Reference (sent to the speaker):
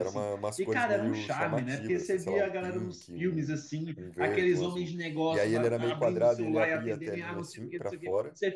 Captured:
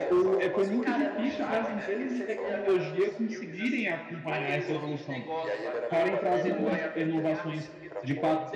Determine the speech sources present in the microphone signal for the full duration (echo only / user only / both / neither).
both